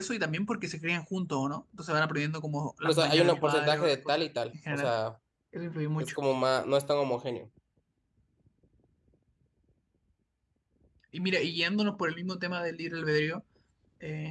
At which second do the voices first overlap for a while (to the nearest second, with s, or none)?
3 s